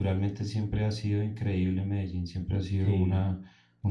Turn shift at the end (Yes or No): No